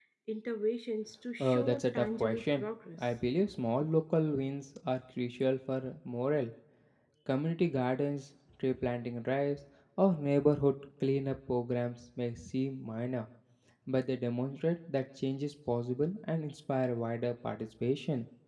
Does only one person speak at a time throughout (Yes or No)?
No